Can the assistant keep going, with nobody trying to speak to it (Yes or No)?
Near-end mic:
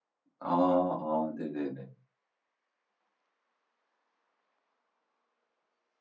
No